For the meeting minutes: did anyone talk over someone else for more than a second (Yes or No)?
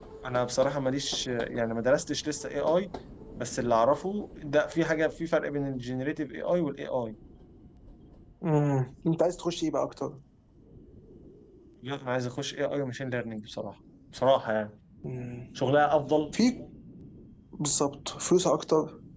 No